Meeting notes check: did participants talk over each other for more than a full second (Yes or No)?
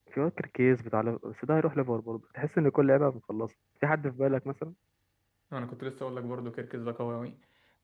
No